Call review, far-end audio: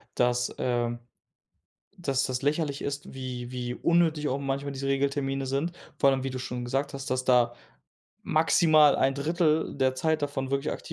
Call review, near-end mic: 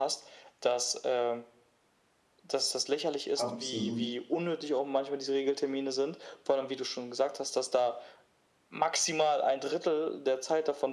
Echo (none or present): present